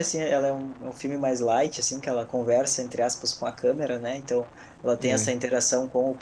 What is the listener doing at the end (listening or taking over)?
listening